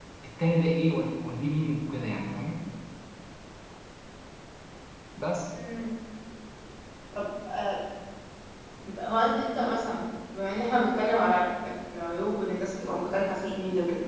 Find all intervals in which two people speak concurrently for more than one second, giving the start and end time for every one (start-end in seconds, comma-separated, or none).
none